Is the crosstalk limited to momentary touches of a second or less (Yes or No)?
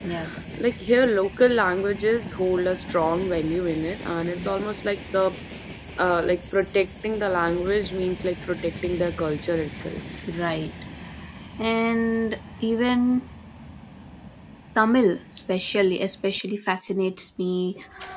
Yes